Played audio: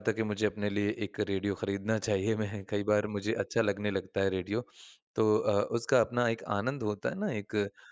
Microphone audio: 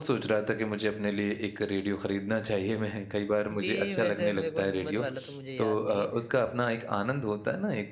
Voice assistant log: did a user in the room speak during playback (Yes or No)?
Yes